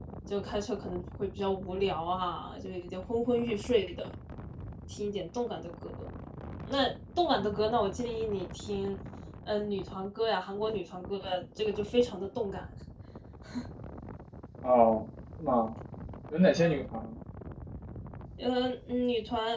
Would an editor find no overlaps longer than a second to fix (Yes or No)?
Yes